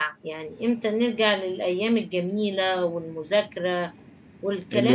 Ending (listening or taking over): taking over